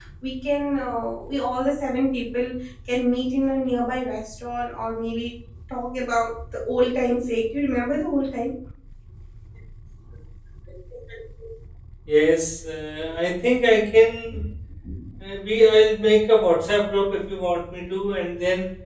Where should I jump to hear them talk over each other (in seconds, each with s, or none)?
none